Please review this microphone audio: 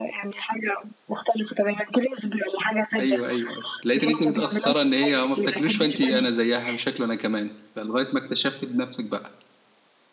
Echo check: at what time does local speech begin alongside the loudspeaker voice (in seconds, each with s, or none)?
3.0 s